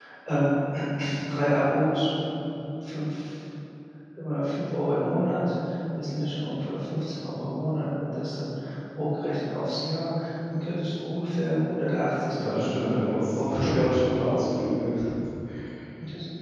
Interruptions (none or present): present